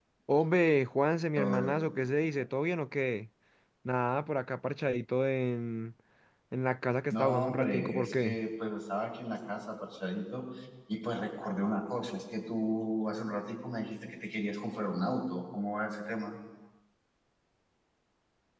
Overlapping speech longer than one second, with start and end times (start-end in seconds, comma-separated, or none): 7.1-8.4